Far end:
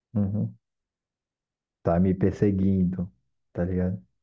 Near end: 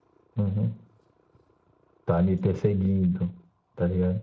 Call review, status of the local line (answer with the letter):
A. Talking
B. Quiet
B